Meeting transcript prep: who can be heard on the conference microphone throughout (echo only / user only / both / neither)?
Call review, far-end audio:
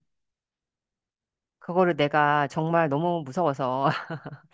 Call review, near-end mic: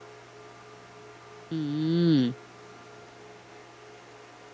user only